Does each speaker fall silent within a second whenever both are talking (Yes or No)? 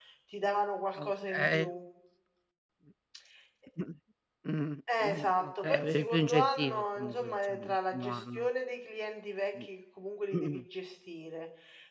No